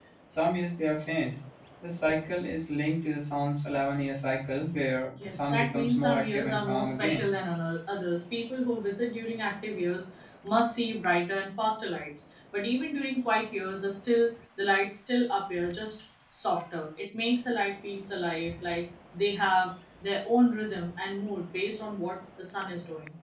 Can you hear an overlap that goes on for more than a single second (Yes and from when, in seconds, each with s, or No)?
Yes, from 5.1 s